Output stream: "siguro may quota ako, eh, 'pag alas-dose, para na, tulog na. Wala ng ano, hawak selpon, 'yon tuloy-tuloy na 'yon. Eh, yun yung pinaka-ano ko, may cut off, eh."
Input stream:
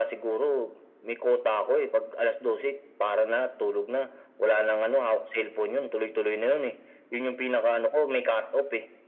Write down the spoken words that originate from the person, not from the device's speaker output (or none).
none